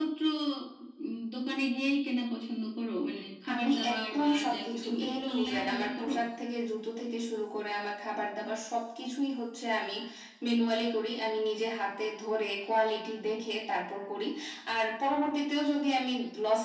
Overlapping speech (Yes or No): Yes